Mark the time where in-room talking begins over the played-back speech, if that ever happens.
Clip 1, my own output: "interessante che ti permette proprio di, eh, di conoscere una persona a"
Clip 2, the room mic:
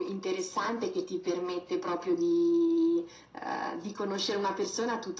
none

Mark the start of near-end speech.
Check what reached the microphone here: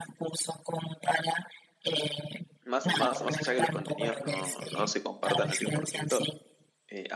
3 s

